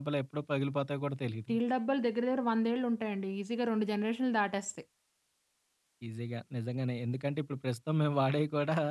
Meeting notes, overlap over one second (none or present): none